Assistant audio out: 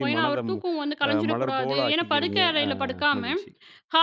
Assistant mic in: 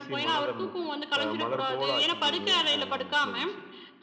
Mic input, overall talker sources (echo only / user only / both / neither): echo only